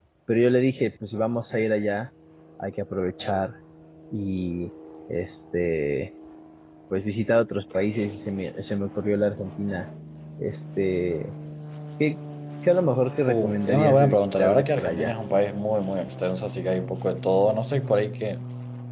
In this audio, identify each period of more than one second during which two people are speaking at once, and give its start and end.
13.3-15.1

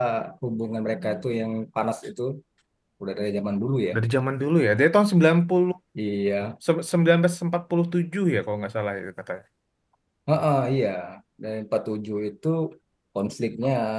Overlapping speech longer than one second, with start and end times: none

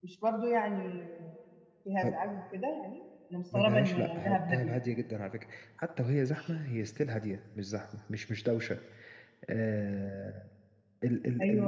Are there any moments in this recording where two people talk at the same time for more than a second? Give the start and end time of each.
3.5-4.7

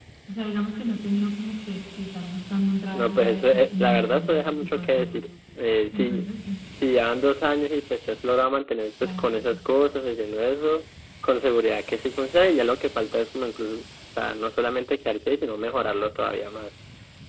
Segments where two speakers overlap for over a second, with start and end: 2.9-5.1

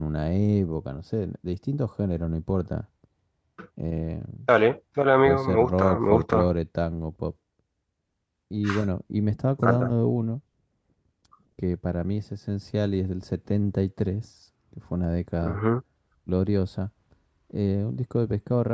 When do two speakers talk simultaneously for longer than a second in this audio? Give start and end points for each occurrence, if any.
5.2-6.5

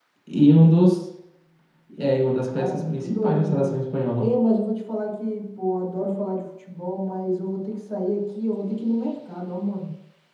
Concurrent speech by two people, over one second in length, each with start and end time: 2.5-3.8

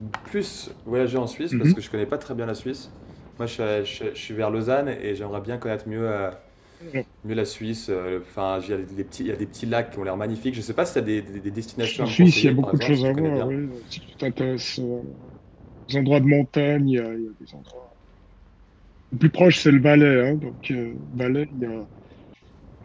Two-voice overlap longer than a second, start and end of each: 12.0-13.5

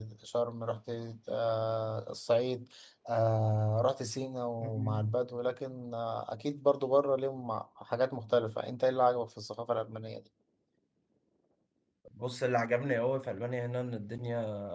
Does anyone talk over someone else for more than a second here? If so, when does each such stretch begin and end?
none

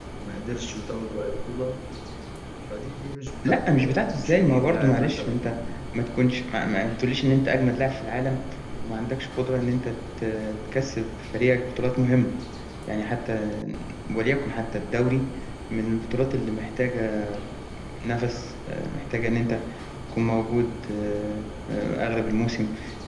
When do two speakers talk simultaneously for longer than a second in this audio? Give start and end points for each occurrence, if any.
3.5-5.4

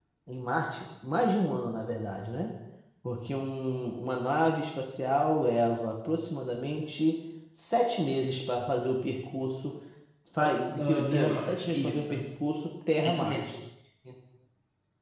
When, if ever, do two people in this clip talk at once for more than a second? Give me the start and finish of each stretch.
10.4-12.0

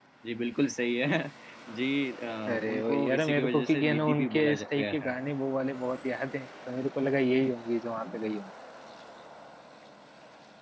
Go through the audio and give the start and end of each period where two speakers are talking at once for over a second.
2.5-5.2

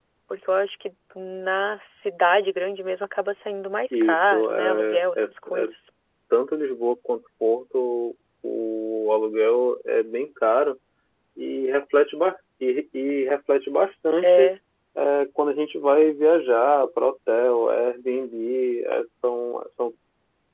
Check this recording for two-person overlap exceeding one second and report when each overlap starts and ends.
3.9-5.2

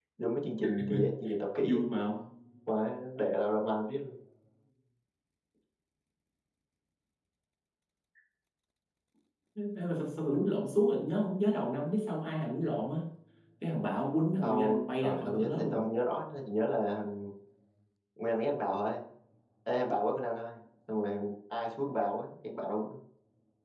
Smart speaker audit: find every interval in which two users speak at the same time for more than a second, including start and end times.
14.4-15.8

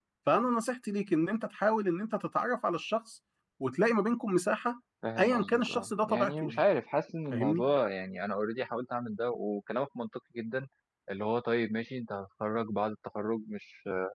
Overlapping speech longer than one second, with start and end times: 5.2-6.6

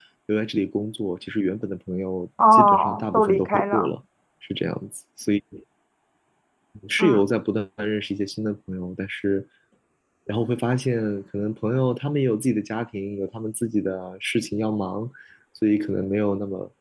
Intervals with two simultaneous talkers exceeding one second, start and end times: 2.5-3.9

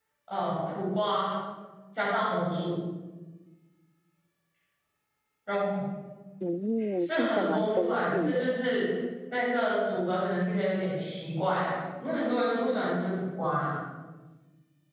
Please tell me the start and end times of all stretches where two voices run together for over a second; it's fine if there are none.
7.0-8.6

